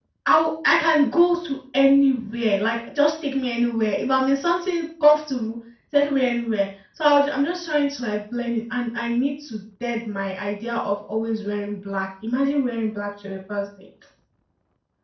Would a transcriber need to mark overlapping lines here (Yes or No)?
No